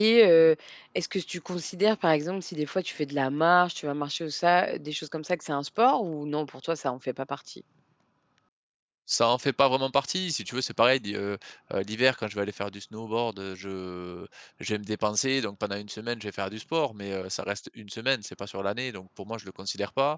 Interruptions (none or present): none